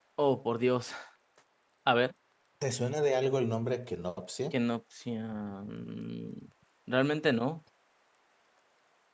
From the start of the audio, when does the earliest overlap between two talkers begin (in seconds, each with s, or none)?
none